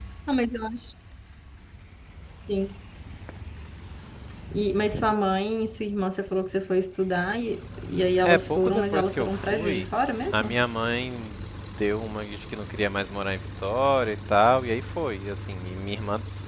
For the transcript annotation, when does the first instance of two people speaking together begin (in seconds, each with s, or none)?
8.2 s